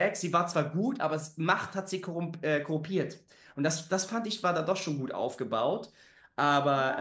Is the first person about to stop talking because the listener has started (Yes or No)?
Yes